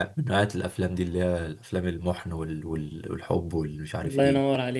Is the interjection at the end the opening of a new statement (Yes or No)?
Yes